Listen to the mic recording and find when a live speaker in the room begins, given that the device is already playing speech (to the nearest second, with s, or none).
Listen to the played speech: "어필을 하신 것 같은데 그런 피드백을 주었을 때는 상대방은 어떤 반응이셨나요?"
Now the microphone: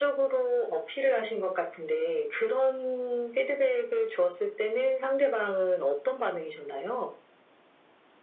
none